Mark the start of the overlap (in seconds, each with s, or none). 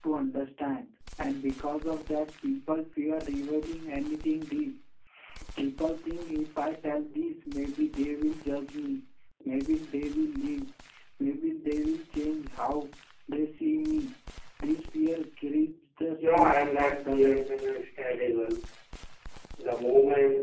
16.2 s